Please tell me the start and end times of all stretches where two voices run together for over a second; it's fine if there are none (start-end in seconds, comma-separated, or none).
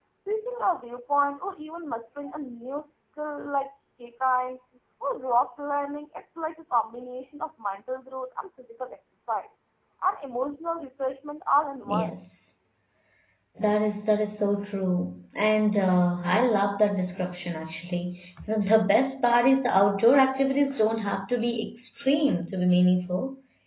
none